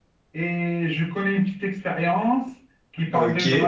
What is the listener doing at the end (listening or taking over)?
listening